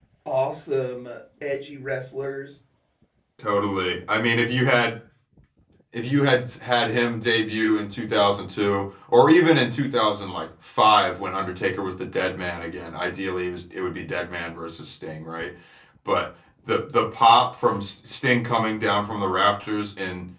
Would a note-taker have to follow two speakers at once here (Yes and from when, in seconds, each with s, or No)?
No